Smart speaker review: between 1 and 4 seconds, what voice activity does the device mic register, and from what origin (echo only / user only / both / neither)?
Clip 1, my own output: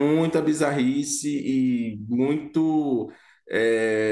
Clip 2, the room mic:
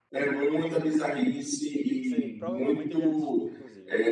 both